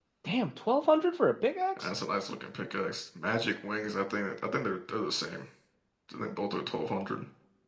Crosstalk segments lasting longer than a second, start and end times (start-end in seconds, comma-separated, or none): none